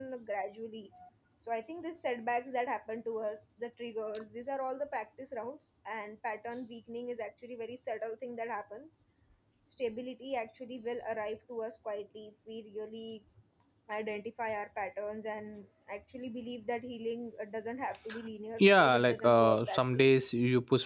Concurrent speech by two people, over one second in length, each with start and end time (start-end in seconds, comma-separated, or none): 18.6-20.1